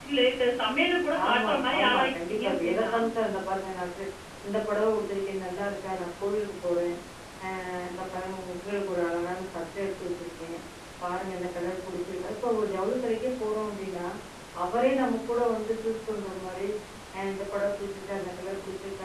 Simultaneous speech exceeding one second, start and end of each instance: 1.2-2.9

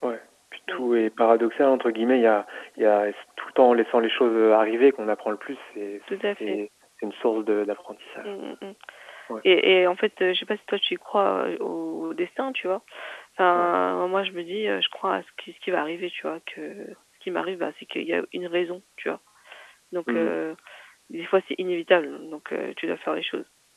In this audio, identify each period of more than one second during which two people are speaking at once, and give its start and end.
none

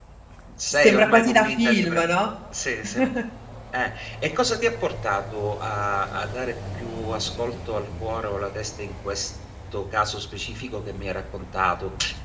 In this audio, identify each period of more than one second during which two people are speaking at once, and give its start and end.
0.7-2.0

